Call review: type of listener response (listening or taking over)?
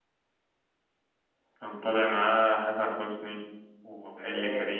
taking over